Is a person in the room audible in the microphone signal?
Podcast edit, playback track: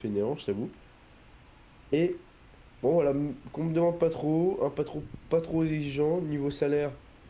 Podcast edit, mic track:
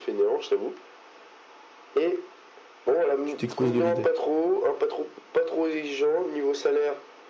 Yes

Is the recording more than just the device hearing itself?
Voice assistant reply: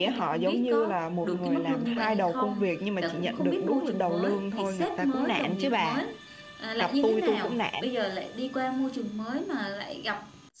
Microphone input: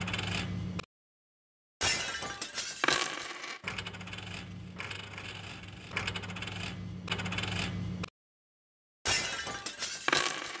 No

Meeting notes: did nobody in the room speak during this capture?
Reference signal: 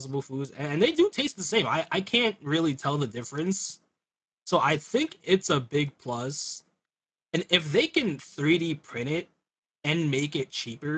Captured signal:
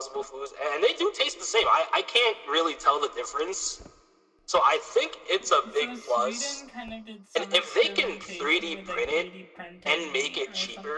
No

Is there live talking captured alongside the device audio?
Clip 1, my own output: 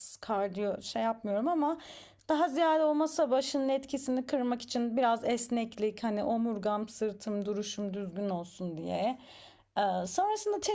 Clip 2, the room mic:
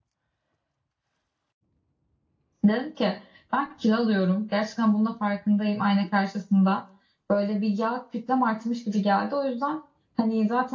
Yes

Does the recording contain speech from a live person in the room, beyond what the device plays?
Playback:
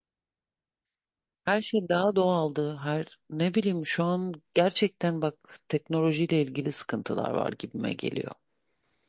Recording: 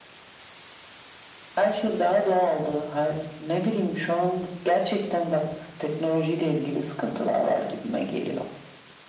No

